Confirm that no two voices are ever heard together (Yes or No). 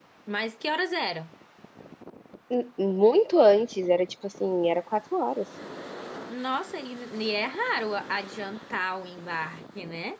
Yes